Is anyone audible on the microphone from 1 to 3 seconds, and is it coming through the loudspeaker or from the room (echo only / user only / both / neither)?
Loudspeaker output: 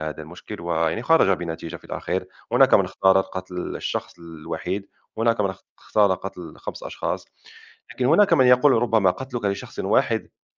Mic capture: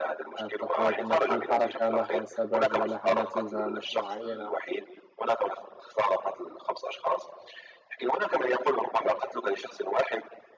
both